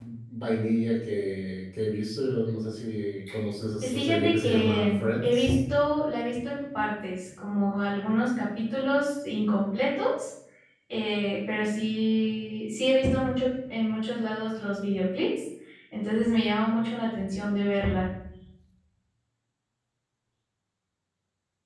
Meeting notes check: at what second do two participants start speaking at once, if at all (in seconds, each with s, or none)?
3.8 s